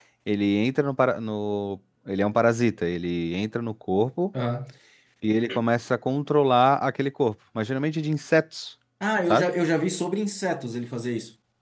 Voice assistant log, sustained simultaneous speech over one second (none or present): none